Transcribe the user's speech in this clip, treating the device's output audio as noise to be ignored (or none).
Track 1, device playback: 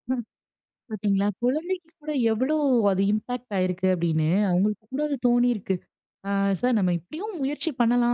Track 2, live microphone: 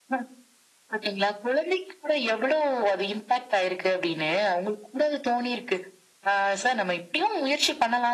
none